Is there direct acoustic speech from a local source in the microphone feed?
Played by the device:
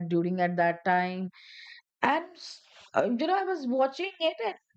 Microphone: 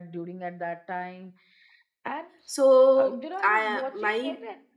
Yes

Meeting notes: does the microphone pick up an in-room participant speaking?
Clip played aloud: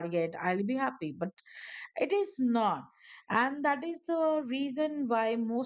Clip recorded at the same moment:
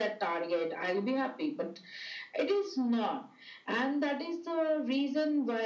No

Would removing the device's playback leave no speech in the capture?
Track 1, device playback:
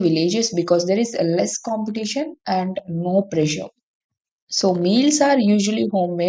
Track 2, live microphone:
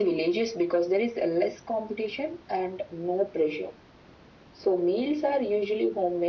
Yes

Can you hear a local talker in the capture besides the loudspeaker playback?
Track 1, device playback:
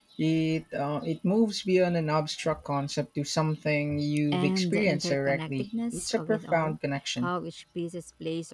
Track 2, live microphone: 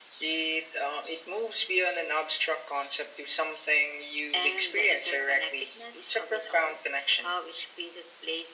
No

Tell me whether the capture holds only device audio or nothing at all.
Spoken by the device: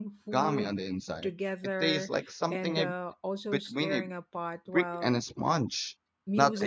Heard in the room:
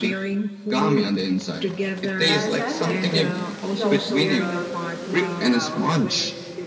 No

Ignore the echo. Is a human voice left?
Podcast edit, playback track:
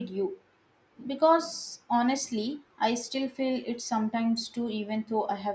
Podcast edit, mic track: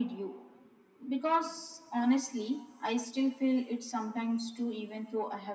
No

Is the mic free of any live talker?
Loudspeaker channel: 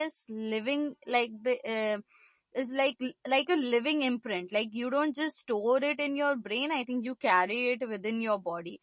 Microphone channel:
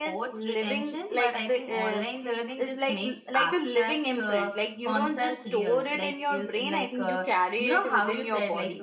No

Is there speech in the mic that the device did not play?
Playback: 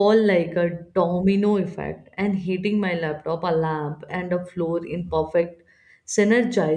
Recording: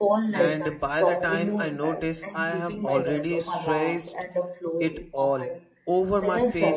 Yes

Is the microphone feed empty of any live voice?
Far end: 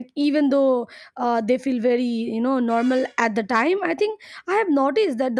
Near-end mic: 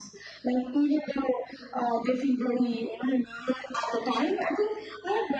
Yes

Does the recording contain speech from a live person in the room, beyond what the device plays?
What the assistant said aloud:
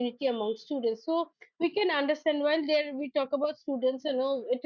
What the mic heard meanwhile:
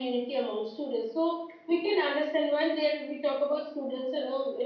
No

